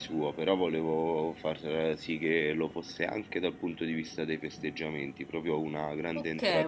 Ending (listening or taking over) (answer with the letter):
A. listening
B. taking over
B